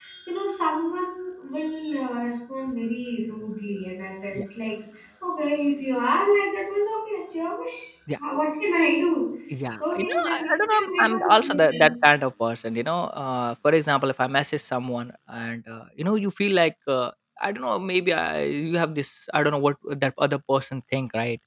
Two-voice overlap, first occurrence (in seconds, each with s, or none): 9.8 s